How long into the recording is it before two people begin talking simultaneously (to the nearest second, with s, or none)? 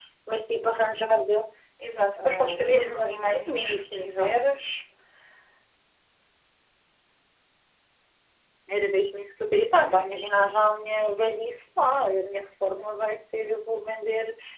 2 s